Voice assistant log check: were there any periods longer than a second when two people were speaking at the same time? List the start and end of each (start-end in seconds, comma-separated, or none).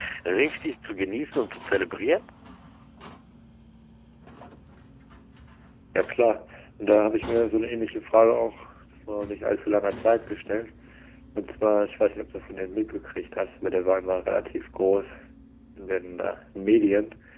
none